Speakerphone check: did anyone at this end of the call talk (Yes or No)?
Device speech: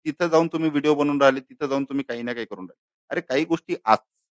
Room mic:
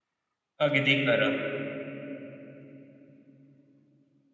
Yes